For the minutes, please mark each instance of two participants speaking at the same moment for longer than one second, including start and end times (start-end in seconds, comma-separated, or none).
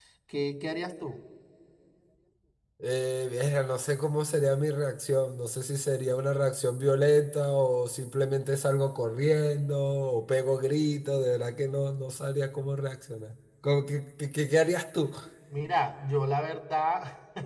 none